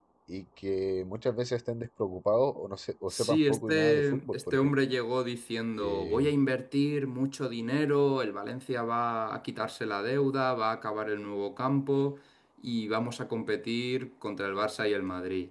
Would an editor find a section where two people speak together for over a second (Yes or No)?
Yes